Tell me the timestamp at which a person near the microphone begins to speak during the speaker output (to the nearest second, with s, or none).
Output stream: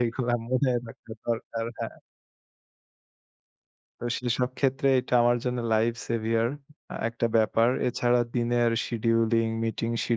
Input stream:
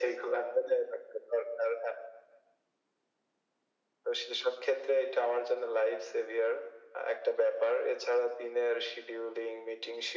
none